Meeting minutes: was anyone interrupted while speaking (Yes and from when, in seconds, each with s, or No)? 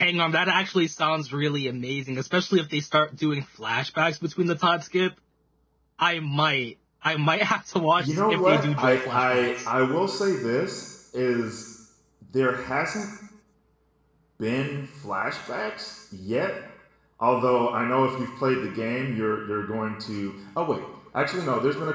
Yes, from 8.0 s